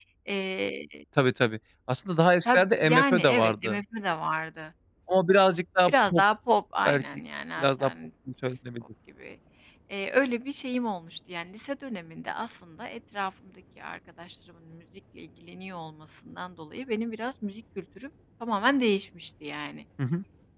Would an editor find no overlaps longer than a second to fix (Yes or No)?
No